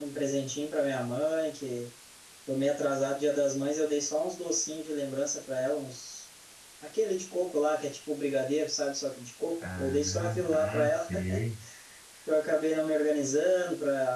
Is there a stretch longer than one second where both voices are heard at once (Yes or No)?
Yes